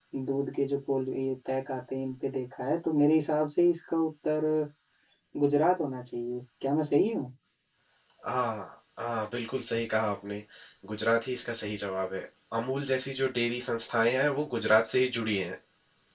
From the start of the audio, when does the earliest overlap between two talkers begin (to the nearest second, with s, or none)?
none